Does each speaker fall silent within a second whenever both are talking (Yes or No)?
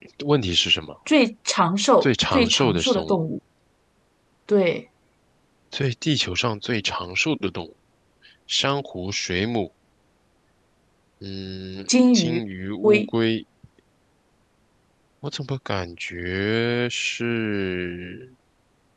No